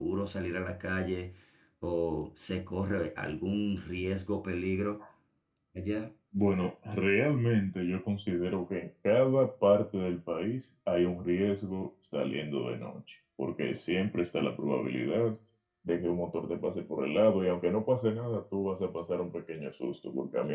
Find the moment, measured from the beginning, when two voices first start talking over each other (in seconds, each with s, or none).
none